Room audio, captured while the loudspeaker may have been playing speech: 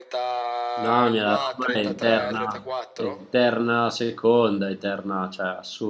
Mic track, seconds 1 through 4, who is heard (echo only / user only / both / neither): both